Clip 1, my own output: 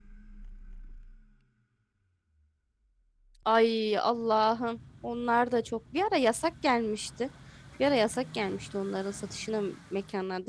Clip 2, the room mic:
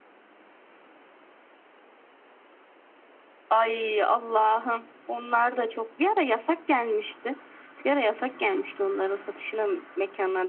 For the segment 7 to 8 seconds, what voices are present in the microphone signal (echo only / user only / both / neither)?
echo only